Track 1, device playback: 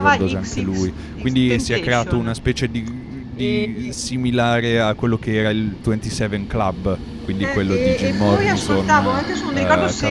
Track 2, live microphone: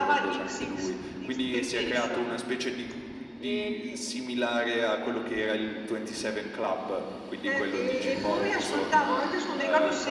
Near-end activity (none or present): none